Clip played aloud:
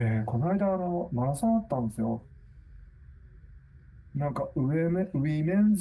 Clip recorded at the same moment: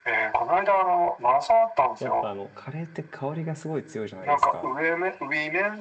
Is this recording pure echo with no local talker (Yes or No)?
No